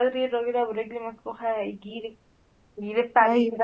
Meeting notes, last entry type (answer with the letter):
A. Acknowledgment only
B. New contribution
A